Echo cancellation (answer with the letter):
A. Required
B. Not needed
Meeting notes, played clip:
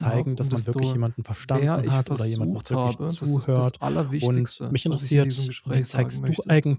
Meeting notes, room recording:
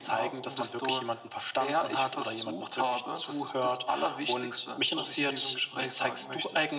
A